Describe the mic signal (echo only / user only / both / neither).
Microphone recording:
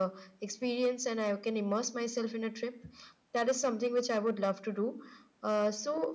echo only